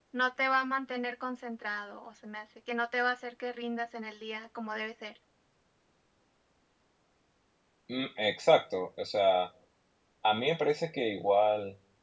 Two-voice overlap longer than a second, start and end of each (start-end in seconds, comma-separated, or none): none